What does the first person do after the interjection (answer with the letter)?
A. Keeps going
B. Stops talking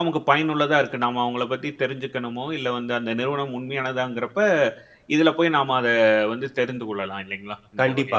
B